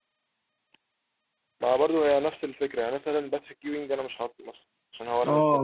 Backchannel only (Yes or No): No